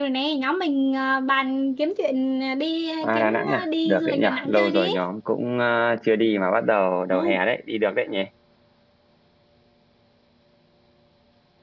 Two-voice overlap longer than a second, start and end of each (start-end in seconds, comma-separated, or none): 3.0-4.9